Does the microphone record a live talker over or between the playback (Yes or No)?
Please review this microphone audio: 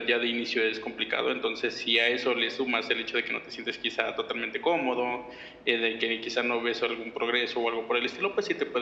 No